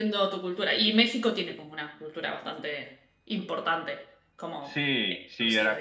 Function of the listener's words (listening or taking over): taking over